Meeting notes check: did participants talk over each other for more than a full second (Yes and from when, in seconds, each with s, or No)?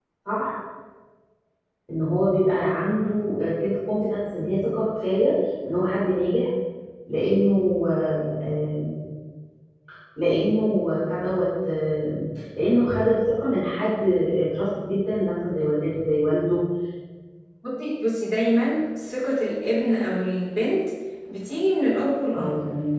No